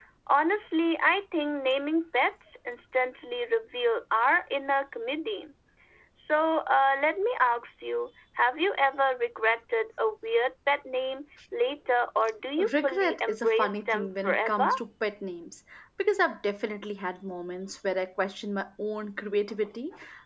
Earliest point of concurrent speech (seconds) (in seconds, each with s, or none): 12.6 s